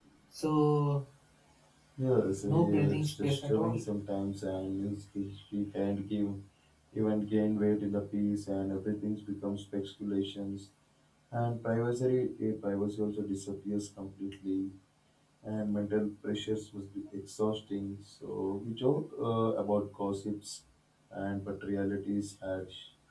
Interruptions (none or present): present